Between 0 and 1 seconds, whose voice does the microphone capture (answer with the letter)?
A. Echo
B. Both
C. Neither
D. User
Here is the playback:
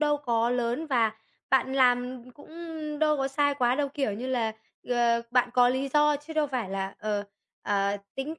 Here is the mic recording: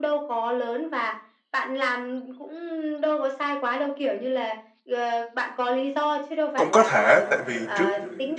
A